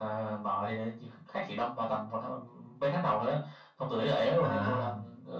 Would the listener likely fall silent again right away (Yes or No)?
Yes